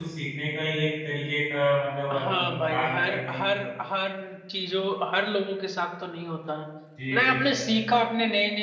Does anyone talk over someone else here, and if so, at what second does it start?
2 s

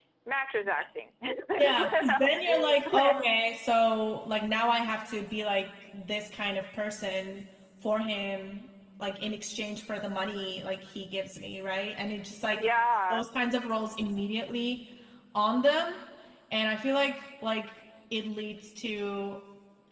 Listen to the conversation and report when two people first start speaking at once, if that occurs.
2 s

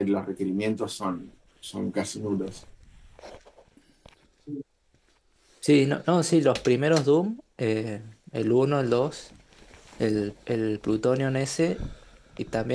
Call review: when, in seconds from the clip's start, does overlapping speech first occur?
none

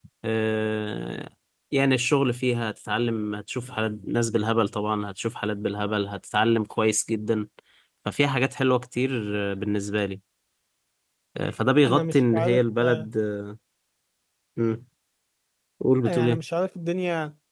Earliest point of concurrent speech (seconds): 12 s

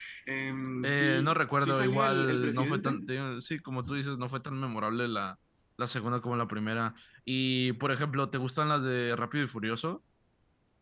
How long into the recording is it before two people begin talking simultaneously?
1 s

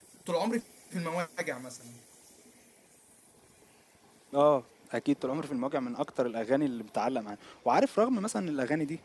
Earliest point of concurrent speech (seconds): none

